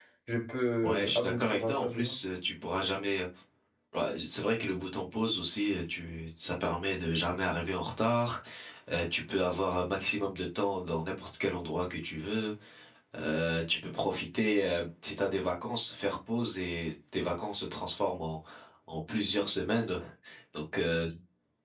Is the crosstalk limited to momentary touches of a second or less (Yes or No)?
No